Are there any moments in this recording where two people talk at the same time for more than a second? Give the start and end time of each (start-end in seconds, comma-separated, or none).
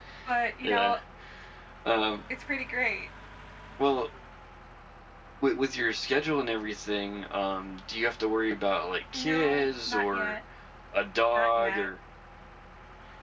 9.1-10.4